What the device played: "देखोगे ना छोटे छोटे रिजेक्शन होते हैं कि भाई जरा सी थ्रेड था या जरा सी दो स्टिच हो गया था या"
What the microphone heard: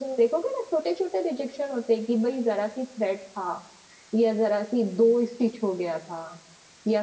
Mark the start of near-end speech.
none

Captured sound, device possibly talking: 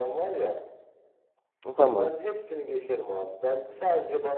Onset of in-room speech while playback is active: 2 s

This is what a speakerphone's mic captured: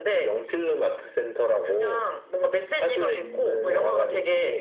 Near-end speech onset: none

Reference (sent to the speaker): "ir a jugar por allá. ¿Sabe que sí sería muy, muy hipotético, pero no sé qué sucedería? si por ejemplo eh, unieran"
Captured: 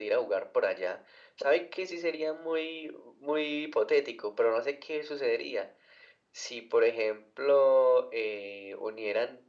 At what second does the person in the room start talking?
none

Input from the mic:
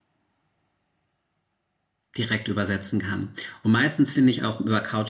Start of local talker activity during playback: 2 s

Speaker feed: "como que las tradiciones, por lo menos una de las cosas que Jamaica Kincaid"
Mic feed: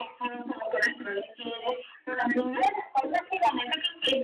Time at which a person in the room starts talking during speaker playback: none

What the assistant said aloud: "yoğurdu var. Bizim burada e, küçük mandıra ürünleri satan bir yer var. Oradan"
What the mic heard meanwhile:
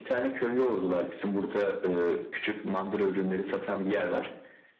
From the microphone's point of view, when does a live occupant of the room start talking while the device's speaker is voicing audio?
none

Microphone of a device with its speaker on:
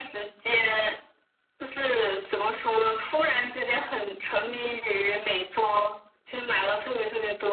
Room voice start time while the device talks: none

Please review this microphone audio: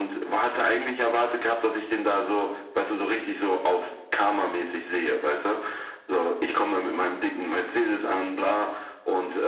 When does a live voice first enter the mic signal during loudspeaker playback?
none

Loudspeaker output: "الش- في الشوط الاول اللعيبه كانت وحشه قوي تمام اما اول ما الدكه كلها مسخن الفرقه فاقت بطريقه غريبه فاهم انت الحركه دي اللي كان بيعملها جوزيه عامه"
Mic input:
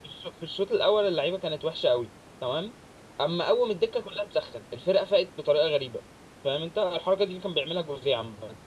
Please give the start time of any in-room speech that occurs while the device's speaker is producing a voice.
none

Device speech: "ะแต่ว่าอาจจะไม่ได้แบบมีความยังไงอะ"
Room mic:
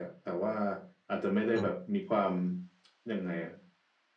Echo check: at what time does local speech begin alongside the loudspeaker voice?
2 s

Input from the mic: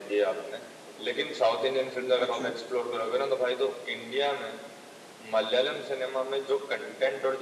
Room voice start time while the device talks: 2 s

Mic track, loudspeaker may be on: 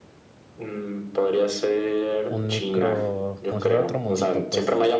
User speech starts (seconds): 2 s

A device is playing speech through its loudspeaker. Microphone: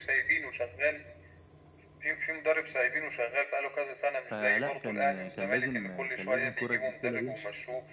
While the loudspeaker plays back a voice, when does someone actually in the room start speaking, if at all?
4 s

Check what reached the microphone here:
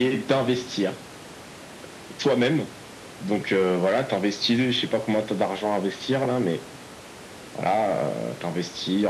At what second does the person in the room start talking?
none

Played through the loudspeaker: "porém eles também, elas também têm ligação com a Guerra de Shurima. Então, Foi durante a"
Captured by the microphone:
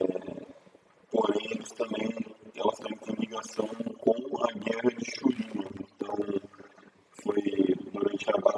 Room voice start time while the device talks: none

